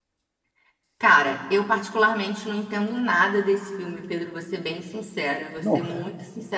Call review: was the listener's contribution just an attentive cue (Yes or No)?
Yes